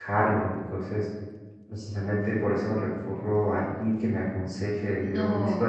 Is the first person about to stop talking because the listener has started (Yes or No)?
Yes